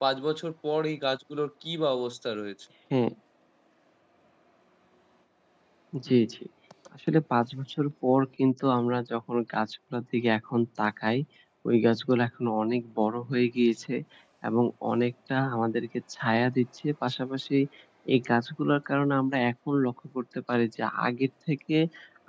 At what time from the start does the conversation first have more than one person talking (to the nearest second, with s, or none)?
none